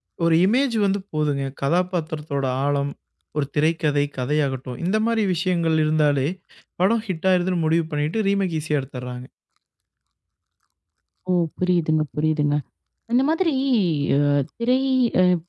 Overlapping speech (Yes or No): No